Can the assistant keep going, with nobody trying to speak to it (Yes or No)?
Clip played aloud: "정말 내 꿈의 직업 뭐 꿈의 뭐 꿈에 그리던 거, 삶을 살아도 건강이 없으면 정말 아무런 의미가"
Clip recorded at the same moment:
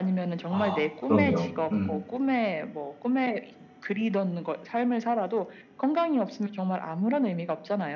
No